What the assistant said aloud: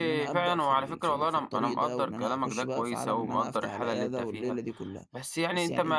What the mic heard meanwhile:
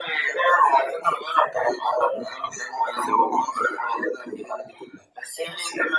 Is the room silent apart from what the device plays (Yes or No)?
Yes